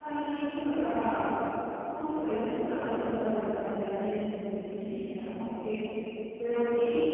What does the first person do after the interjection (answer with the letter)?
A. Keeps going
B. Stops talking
A